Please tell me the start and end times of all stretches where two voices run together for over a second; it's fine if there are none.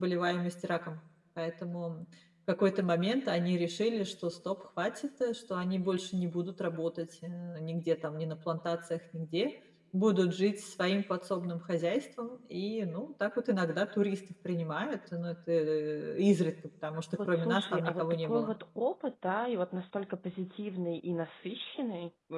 17.2-18.5

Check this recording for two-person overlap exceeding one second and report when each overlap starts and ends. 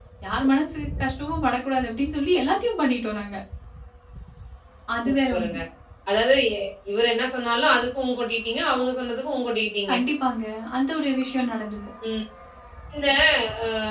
none

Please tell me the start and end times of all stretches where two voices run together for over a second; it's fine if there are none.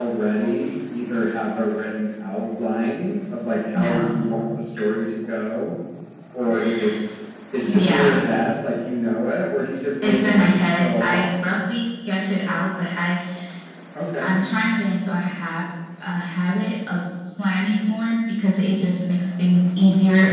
10.0-11.3

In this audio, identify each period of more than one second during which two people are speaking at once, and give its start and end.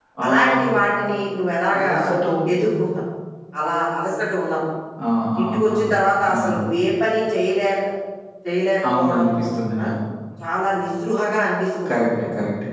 none

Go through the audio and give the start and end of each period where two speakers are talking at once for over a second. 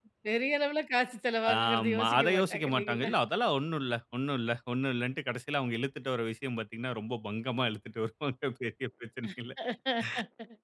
1.6-3.1

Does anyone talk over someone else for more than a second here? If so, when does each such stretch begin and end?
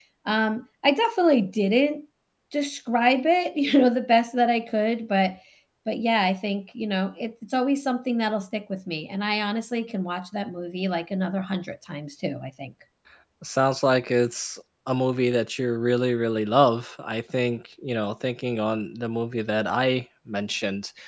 none

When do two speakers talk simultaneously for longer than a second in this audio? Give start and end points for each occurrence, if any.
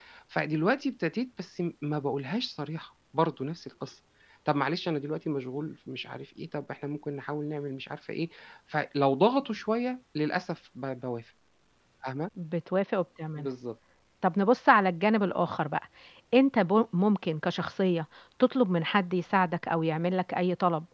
none

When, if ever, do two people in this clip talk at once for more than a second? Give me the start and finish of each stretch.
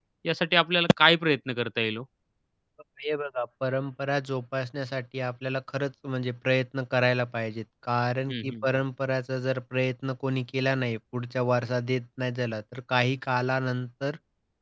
none

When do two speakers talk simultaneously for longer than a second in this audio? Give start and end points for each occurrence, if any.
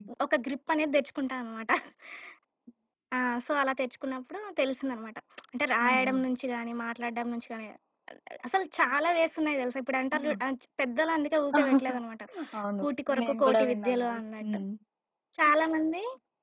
13.2-14.6

